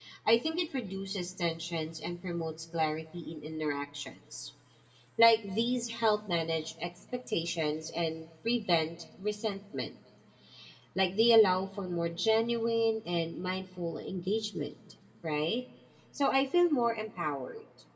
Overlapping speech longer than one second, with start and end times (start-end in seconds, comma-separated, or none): none